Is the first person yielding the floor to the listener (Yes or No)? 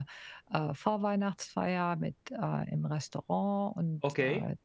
No